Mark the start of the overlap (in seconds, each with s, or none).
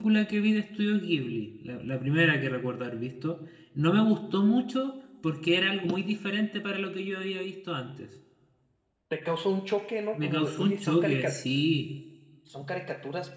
10.1 s